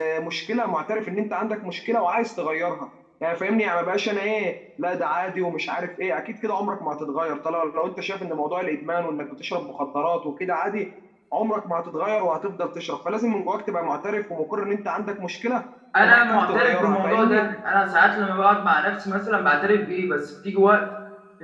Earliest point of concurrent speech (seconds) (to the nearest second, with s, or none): 16 s